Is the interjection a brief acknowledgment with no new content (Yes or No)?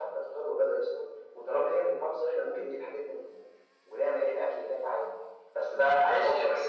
No